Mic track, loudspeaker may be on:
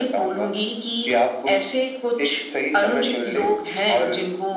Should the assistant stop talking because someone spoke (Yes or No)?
No